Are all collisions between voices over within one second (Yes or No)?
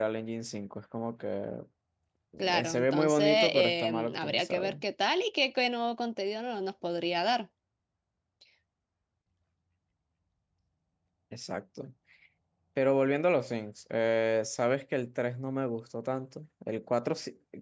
No